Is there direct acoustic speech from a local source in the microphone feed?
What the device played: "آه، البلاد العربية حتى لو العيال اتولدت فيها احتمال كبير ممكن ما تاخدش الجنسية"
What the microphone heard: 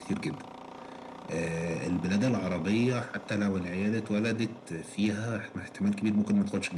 No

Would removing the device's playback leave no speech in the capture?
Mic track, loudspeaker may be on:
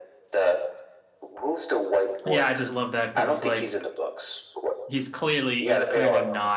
No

